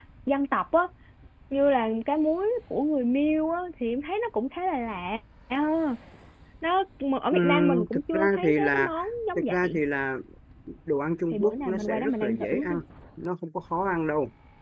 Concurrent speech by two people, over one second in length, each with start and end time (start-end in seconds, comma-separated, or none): 7.3-8.9, 11.3-12.8